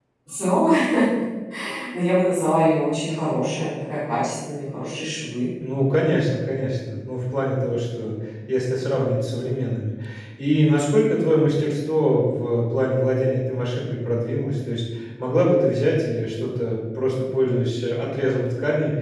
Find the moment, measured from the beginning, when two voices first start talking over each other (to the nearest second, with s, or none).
none